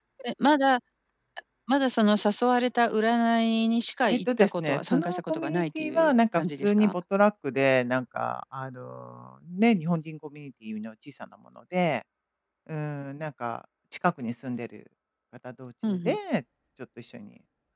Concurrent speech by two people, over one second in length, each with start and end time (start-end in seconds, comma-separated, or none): 4.1-6.9